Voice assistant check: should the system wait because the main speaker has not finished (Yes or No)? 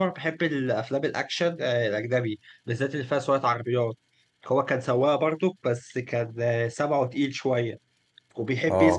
Yes